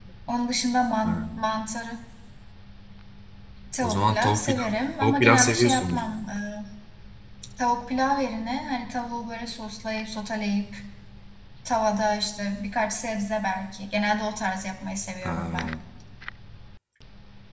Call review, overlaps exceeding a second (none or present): present